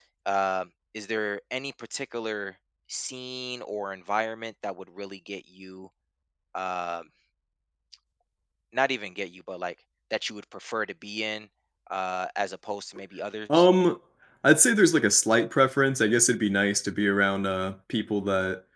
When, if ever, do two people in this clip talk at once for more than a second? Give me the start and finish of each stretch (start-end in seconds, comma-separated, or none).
none